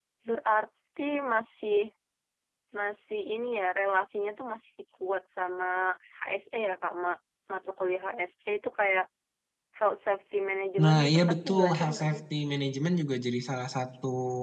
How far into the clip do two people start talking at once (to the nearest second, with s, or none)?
11 s